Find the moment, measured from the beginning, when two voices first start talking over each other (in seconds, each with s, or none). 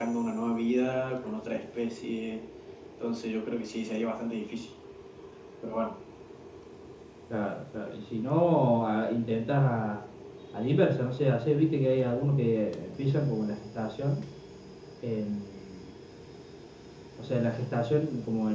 none